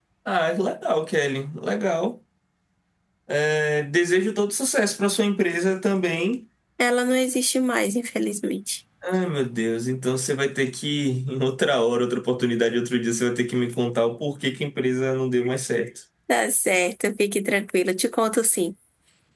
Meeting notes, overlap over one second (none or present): none